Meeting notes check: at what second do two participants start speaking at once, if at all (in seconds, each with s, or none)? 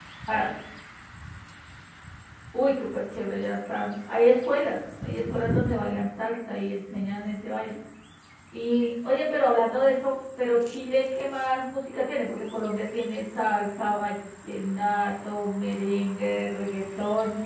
none